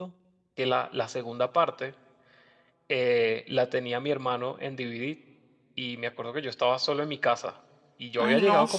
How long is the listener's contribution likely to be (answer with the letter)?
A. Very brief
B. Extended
A